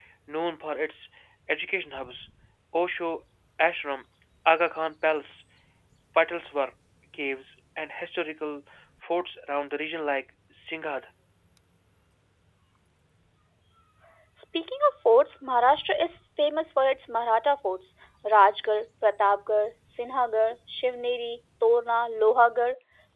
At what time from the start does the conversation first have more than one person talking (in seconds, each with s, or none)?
none